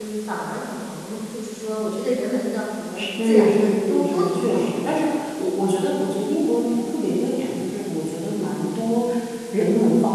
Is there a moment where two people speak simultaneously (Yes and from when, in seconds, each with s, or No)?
Yes, from 3.0 s